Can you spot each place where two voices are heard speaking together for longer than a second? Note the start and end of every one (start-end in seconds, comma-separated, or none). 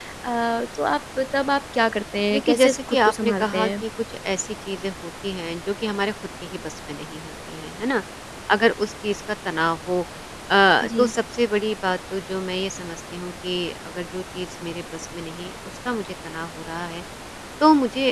2.3-3.8